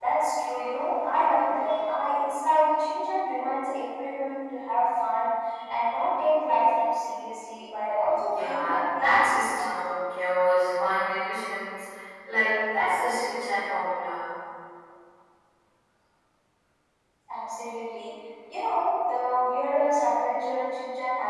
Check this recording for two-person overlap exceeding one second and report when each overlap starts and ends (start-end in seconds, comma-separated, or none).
8.1-9.9